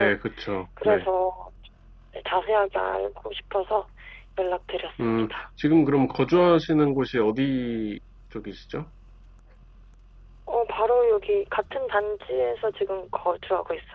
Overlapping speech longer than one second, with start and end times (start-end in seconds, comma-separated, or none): none